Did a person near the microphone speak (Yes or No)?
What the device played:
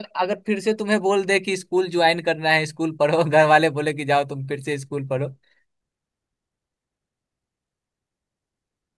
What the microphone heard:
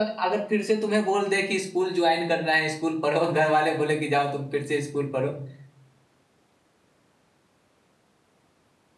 No